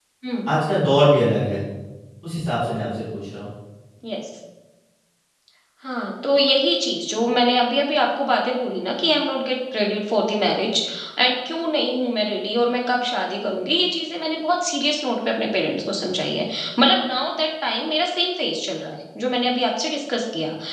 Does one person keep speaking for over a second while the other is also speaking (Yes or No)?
No